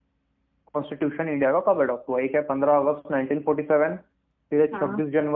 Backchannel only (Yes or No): Yes